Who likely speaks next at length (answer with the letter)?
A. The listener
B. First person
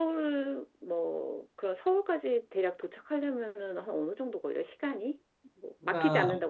A